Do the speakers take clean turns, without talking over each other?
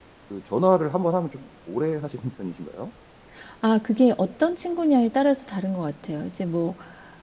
Yes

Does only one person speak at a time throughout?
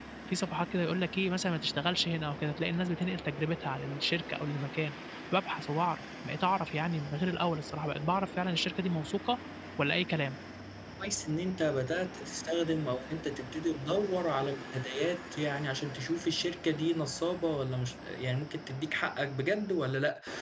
Yes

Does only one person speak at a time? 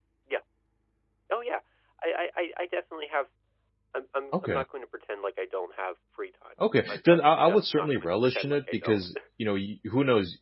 No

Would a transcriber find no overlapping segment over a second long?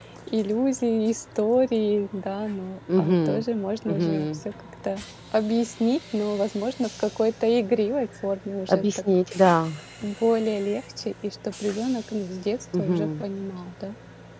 Yes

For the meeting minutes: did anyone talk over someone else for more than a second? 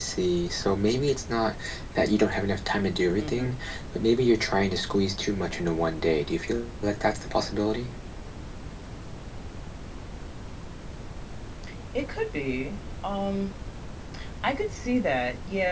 No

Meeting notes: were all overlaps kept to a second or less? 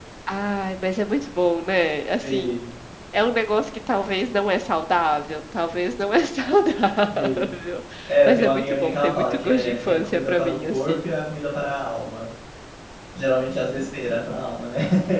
No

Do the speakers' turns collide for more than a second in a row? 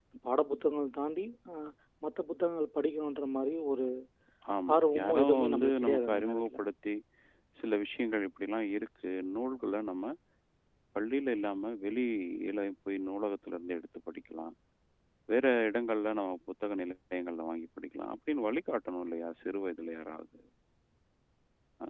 Yes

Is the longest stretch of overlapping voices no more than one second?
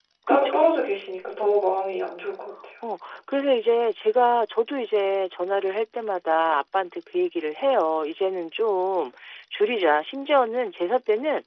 Yes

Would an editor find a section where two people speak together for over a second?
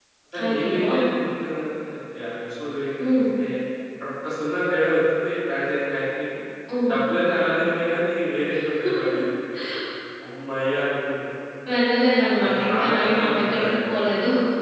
Yes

